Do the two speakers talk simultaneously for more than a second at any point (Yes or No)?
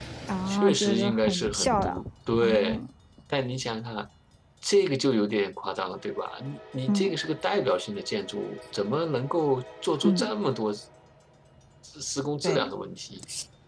Yes